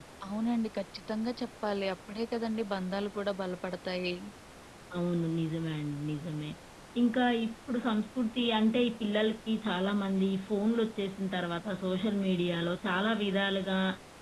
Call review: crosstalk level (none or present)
none